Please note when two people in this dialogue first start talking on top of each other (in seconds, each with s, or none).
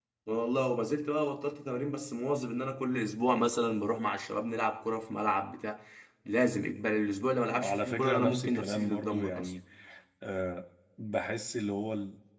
7.5 s